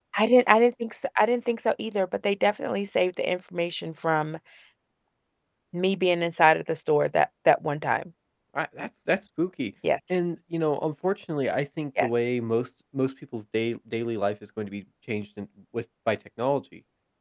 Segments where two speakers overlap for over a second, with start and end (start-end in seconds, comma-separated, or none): none